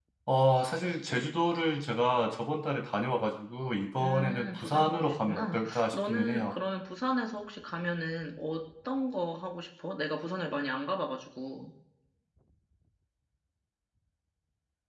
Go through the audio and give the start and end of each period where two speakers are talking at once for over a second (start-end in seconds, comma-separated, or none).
4.0-6.5